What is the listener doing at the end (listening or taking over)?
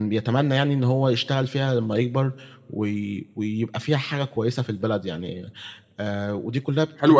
taking over